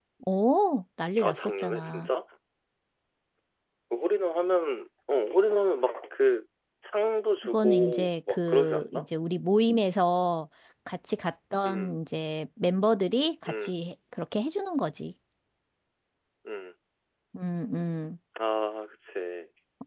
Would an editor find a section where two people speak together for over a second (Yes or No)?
Yes